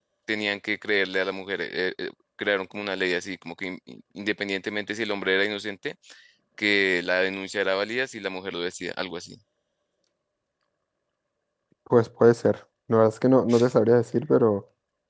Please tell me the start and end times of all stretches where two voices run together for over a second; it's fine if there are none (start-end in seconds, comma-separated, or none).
none